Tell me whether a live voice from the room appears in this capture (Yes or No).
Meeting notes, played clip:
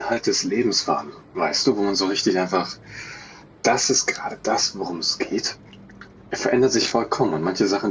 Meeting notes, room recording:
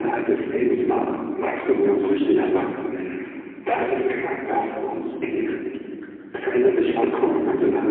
No